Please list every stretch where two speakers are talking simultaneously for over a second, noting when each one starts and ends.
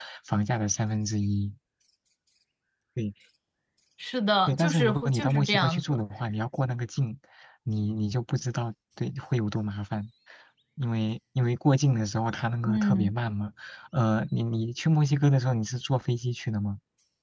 4.5-5.8

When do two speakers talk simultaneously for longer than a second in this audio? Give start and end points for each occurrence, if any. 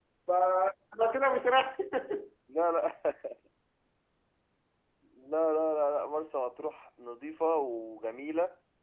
none

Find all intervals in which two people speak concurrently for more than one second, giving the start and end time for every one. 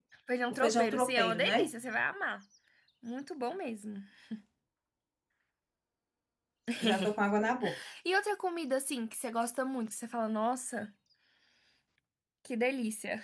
0.5-1.7

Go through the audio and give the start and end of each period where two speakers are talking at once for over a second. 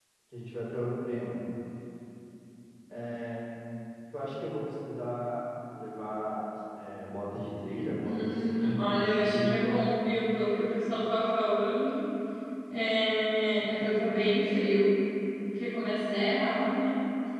8.1-9.8

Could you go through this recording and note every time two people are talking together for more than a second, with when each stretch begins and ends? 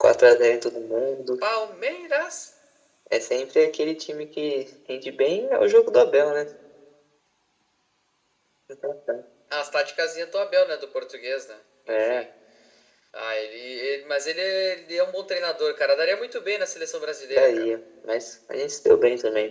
none

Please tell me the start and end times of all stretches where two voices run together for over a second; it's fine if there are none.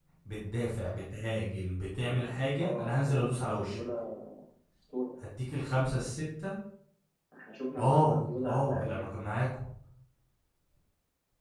2.6-3.8, 7.8-9.1

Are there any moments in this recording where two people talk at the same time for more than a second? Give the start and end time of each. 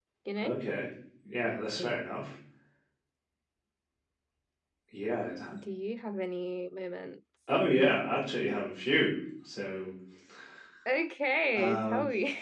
none

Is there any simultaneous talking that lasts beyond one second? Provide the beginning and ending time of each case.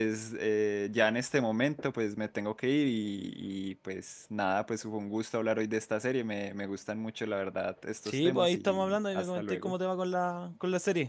8.1-9.7

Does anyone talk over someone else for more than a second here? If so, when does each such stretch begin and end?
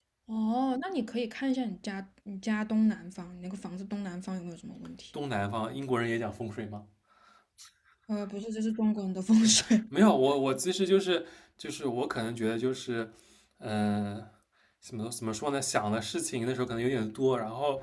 none

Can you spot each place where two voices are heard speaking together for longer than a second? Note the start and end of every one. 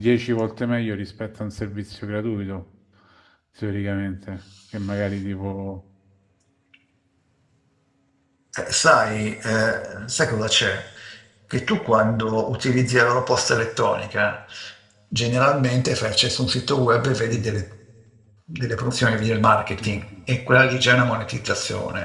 none

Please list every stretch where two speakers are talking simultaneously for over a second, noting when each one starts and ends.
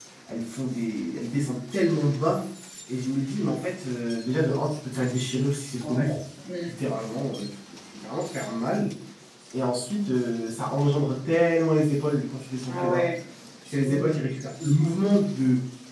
none

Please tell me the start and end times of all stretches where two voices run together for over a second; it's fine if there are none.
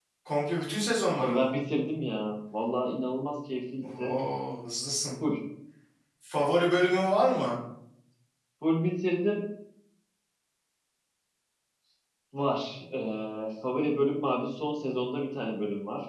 none

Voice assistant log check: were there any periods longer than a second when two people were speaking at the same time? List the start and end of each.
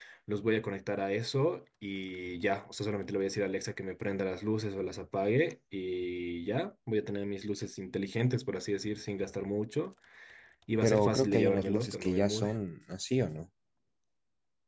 10.8-12.5

